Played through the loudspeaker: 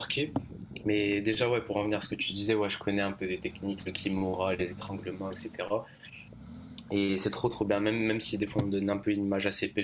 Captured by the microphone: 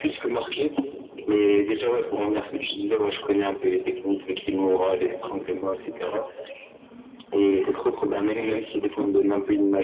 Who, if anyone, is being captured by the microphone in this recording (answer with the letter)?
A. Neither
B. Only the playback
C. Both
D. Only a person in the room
B